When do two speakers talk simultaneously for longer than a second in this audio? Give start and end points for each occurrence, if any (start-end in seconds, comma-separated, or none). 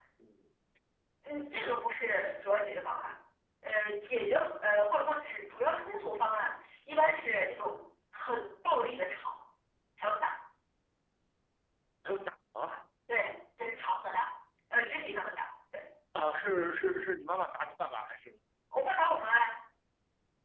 none